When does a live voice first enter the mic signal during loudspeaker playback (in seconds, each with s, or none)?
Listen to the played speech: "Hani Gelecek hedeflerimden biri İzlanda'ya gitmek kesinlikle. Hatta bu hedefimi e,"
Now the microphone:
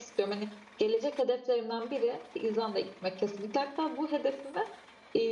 none